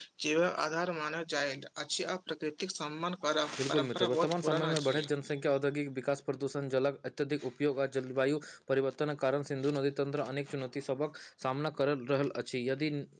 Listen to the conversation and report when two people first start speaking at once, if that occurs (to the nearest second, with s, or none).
3 s